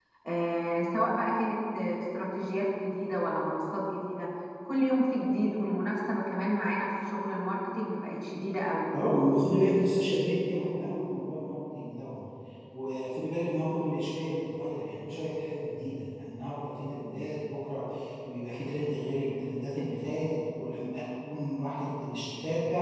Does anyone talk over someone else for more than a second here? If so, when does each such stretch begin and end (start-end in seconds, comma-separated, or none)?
none